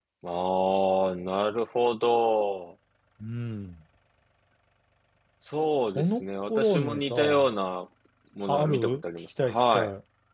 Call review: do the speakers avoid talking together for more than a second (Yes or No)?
No